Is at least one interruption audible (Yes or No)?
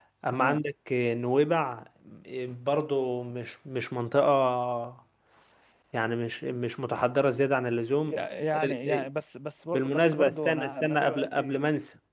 Yes